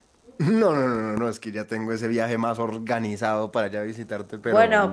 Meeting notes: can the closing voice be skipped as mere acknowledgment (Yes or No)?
No